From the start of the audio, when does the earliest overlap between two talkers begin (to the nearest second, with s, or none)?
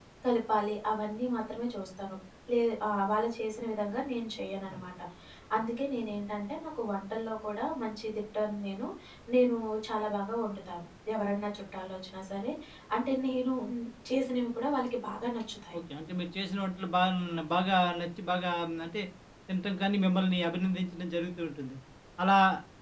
none